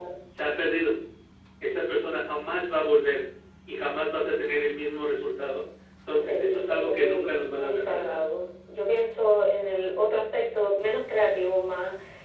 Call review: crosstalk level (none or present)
present